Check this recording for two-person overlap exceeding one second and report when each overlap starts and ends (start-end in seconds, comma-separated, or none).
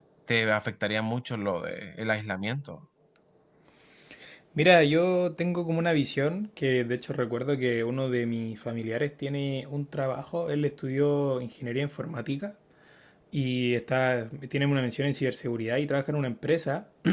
none